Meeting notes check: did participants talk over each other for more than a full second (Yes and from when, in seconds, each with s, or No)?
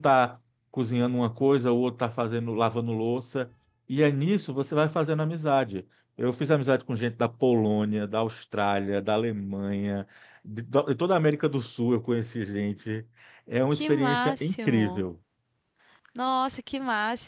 Yes, from 13.7 s